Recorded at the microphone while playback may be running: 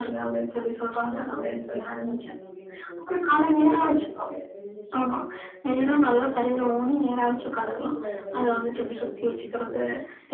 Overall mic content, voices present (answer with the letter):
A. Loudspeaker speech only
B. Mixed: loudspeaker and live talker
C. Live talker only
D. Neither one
B